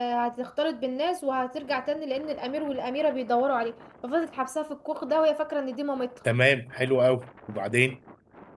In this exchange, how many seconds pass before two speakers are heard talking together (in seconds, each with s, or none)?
none